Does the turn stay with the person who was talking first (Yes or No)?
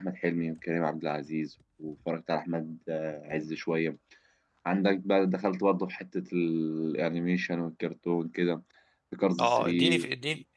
No